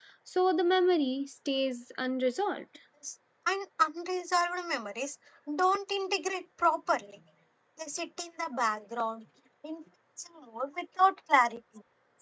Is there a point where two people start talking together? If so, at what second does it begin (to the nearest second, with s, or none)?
none